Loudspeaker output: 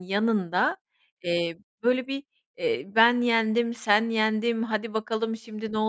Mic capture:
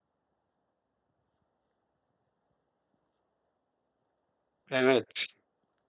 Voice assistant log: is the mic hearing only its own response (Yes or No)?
No